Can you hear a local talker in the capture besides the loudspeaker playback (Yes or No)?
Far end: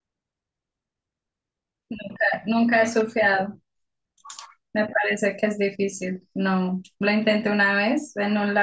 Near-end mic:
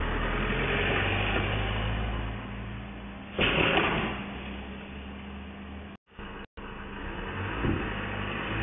No